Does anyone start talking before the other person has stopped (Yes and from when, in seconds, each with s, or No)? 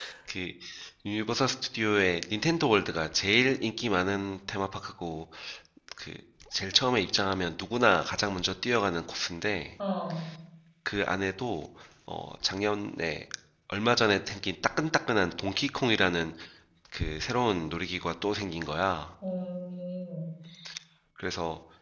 No